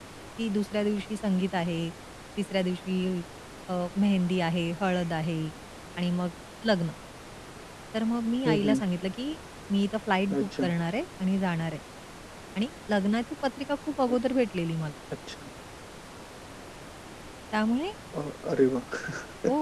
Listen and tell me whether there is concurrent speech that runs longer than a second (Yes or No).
No